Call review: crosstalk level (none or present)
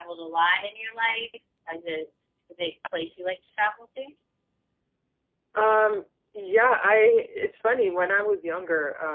none